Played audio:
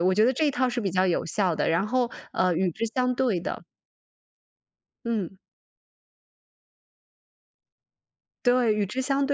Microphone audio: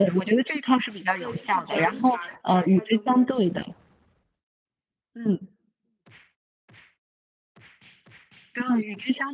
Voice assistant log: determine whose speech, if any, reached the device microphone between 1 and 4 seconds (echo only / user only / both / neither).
both